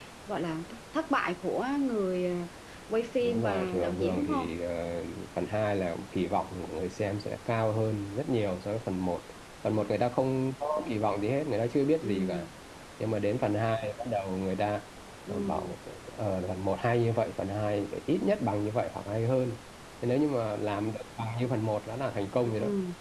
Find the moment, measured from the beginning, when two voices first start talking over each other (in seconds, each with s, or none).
3.2 s